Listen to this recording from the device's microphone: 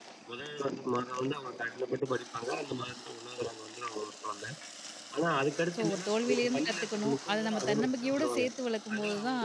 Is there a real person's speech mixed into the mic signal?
Yes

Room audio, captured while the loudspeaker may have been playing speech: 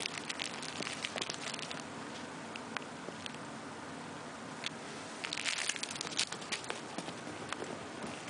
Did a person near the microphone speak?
No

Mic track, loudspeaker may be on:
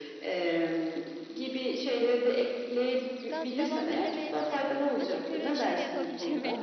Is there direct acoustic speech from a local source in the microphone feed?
Yes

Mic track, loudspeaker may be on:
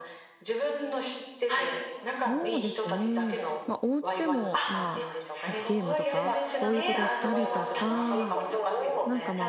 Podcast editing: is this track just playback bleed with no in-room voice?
No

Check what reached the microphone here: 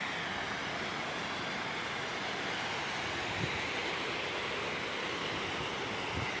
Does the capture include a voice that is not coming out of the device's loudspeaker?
No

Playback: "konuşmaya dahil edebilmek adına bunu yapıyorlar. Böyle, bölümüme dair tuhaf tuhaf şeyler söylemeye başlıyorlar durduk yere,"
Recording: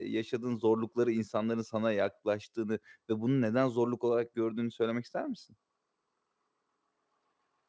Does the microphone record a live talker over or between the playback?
Yes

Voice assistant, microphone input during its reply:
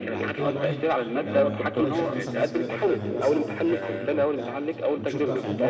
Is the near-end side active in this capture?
Yes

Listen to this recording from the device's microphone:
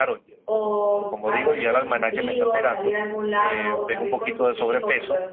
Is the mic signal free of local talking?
No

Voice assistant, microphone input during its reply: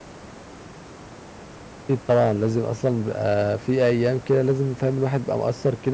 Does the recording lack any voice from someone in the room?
No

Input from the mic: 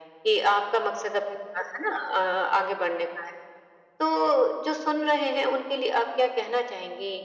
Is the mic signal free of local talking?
Yes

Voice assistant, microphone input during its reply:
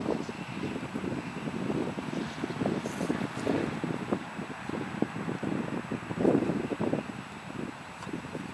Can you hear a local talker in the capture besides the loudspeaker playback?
No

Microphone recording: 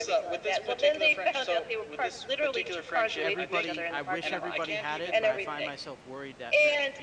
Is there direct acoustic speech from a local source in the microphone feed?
Yes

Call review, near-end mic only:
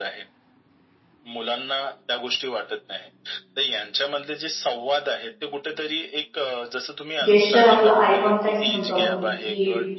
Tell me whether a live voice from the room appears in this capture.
Yes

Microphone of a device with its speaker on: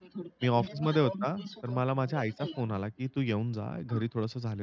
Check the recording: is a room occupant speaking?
Yes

